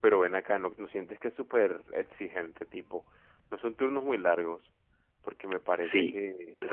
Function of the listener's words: taking over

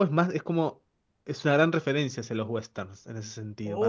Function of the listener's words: taking over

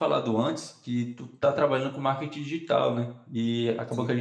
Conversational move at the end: listening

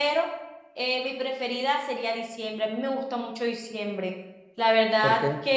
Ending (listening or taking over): listening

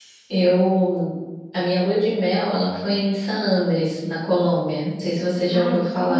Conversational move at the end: taking over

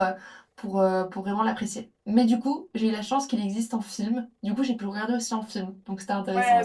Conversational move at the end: taking over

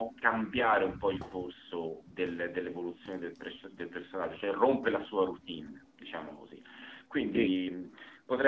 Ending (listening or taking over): listening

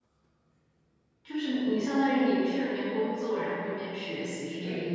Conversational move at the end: taking over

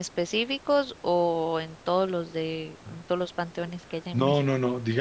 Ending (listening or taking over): taking over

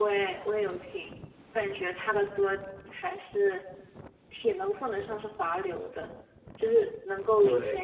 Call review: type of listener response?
listening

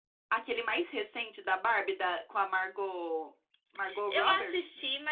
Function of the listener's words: taking over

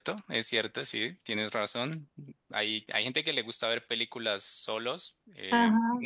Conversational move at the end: listening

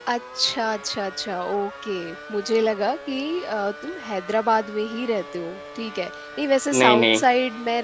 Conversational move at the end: listening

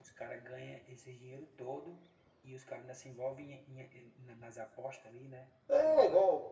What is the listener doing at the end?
taking over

